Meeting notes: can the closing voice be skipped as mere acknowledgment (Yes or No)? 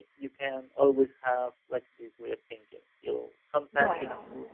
Yes